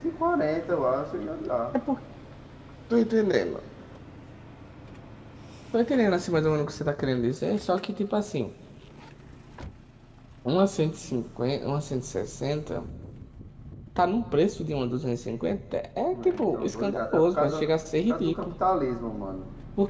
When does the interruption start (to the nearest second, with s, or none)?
16 s